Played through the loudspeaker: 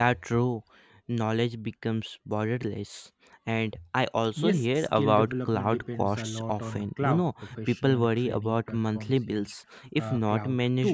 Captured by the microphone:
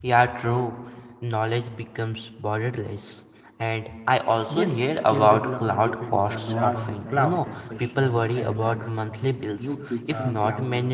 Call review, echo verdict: present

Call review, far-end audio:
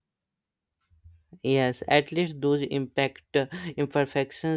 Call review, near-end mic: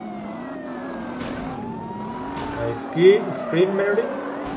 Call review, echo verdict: none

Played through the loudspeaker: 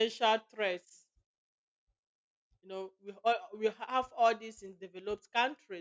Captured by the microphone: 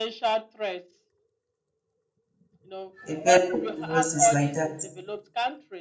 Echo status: present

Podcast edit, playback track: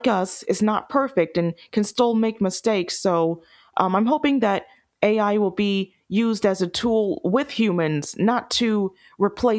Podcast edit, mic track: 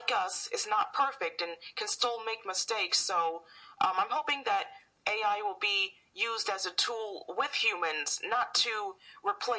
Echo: present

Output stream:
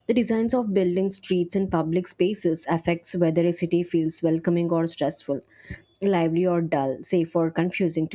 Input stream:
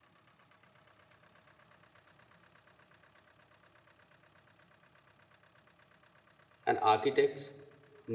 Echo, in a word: none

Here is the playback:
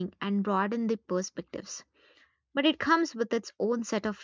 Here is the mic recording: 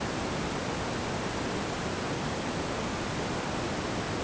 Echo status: none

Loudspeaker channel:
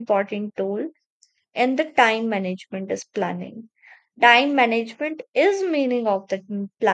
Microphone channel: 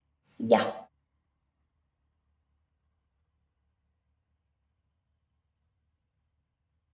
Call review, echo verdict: none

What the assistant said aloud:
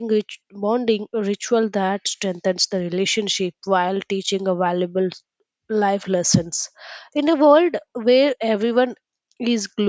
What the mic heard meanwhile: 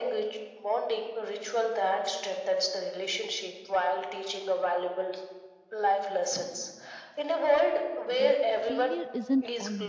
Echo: present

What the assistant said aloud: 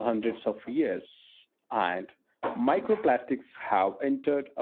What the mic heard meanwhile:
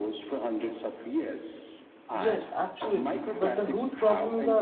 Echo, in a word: present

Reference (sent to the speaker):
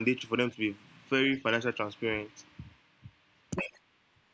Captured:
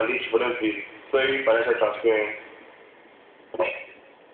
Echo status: present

